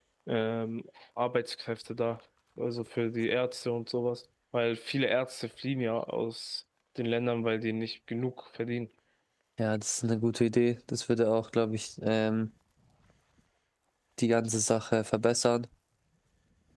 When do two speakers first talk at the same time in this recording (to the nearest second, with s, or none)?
none